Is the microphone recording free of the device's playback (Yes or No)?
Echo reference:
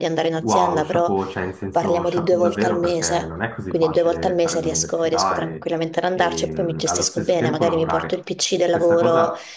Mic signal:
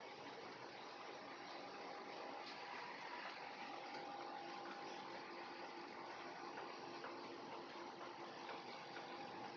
Yes